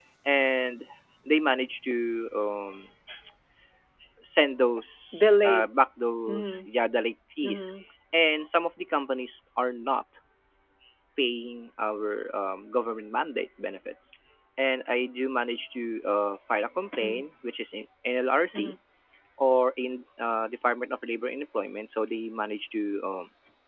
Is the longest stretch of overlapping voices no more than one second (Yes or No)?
Yes